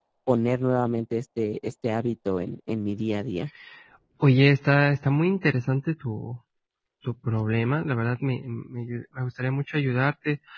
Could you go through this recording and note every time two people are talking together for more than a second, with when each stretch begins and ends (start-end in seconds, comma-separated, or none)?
none